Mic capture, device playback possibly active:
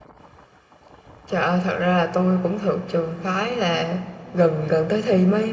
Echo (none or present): none